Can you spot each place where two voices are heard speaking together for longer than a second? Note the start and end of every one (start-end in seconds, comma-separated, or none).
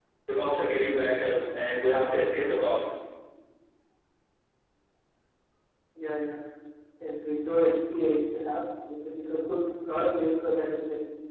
none